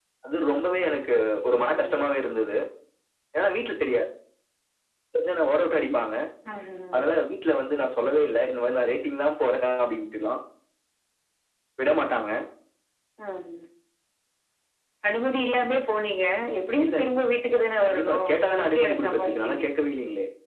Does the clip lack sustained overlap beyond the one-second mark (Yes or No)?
No